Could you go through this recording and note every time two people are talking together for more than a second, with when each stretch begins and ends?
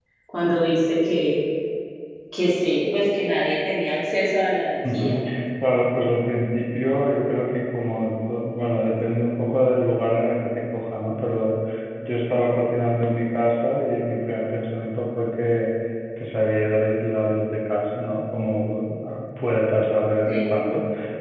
none

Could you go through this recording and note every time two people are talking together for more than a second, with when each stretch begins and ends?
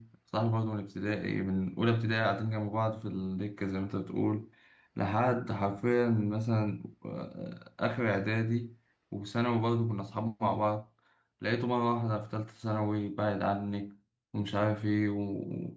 none

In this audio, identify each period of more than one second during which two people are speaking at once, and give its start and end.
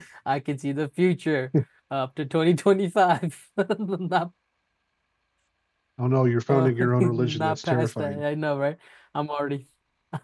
6.5-8.2

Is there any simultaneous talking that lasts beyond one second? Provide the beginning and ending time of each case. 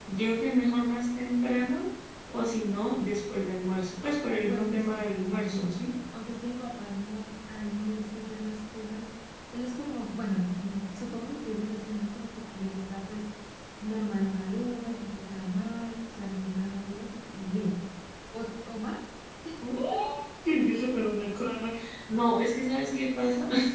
4.4-5.8

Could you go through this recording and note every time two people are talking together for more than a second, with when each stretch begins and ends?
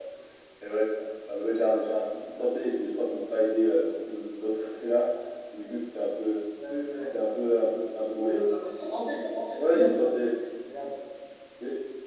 none

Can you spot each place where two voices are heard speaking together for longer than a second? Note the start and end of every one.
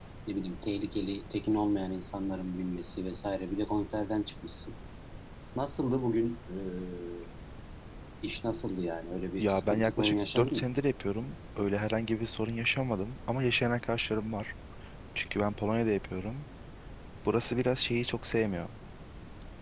9.4-10.6

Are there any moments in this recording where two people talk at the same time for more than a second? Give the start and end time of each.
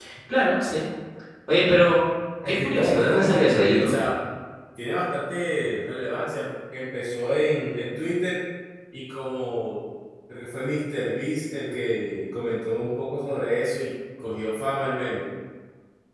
2.5-3.9

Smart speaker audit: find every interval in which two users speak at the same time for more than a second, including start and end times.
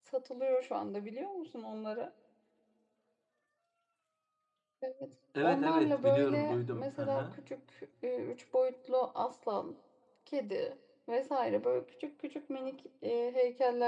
5.4-7.4

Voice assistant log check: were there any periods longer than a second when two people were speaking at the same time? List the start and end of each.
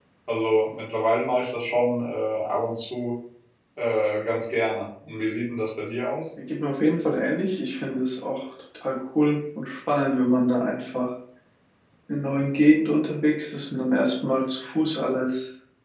none

